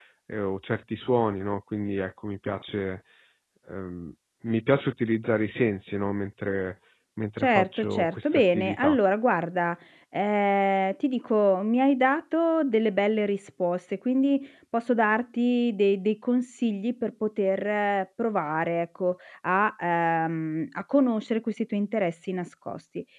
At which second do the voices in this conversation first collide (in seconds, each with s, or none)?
7.4 s